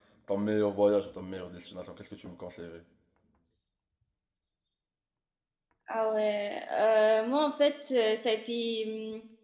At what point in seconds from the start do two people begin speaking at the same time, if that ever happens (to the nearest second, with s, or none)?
none